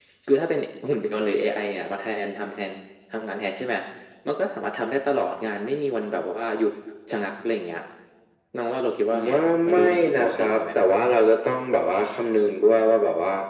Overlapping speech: Yes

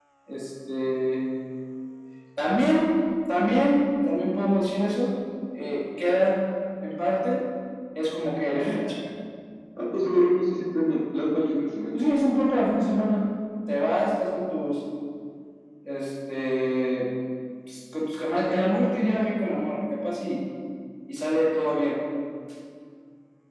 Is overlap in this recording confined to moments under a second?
Yes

